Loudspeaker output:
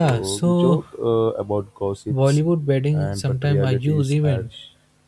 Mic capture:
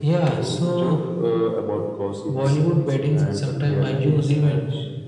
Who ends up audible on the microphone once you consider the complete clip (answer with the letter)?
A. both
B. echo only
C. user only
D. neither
A